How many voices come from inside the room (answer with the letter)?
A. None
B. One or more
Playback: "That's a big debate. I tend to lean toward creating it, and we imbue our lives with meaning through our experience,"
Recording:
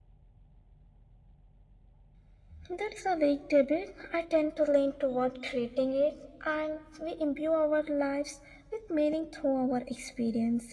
A